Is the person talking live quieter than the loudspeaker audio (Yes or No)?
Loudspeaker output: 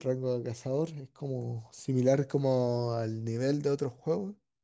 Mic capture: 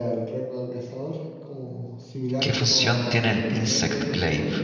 No